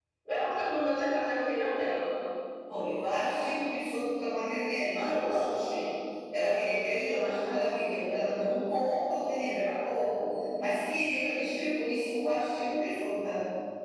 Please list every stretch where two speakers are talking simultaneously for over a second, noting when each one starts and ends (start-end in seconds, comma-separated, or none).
none